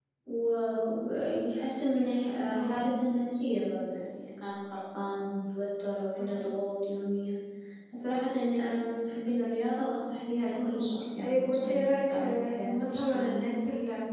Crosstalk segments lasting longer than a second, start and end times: 11.2-13.4

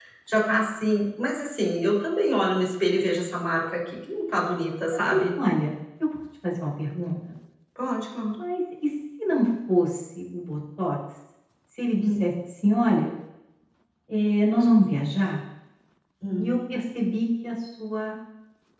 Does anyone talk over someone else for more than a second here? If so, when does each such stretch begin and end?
none

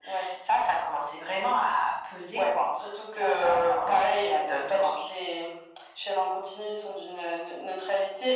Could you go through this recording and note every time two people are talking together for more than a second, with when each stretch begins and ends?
3.2-4.9

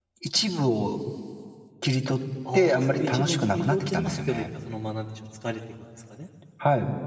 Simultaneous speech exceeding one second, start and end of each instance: 2.5-4.4

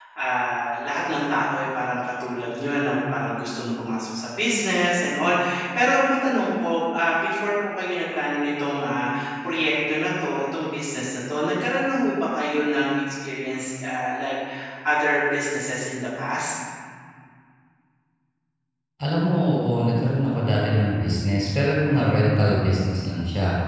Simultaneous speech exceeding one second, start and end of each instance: none

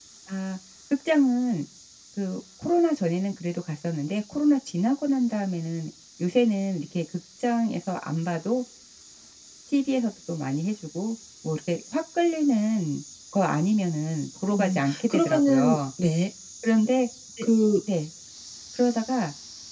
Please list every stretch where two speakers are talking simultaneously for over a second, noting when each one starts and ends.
14.5-15.8

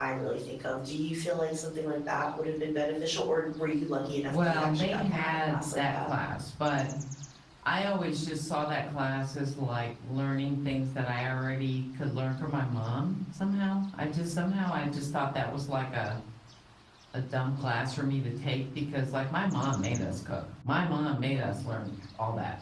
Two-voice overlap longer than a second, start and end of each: 4.3-6.1

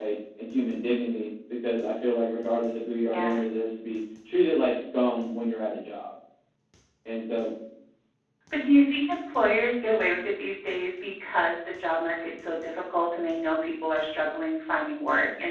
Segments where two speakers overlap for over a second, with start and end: none

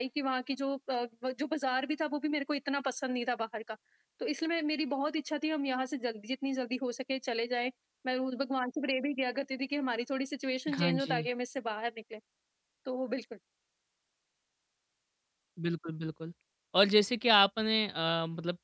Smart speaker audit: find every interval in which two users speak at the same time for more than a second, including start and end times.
none

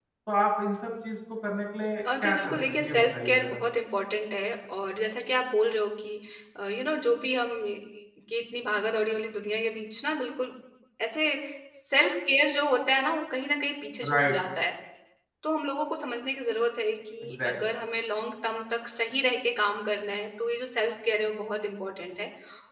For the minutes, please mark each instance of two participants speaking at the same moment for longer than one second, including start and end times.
2.2-3.6

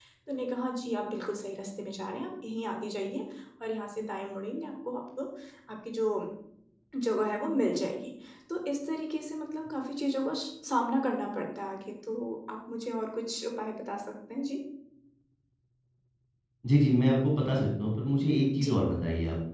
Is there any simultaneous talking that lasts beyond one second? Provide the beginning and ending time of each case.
none

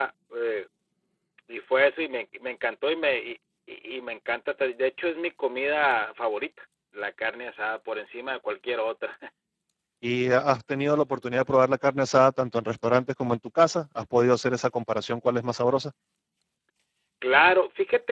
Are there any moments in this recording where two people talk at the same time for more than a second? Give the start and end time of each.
none

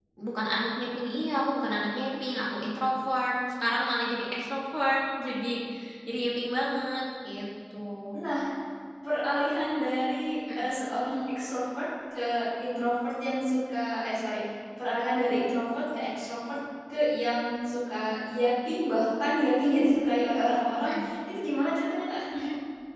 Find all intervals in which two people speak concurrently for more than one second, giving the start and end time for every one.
none

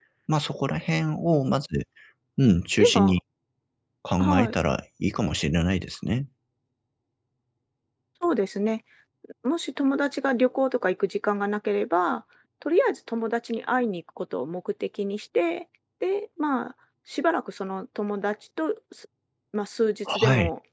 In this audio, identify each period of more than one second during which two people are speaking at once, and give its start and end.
none

